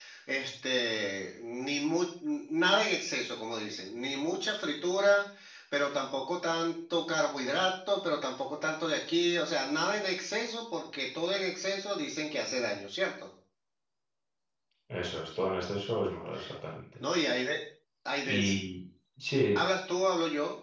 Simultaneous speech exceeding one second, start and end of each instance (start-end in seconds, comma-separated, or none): none